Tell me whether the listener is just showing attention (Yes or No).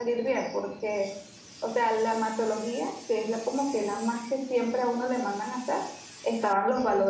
Yes